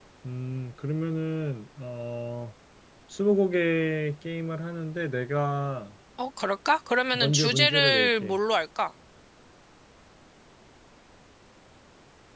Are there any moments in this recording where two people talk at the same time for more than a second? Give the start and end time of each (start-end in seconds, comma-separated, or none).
7.1-8.4